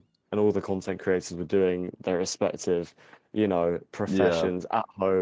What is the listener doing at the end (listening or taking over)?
listening